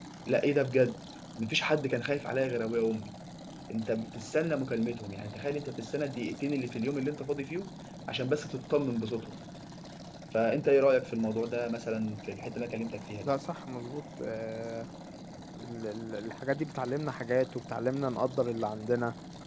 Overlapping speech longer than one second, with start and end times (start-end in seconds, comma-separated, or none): none